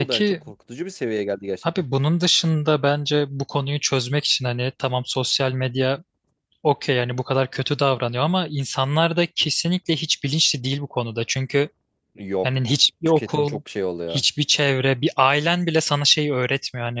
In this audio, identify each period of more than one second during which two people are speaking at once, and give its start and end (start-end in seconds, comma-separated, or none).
none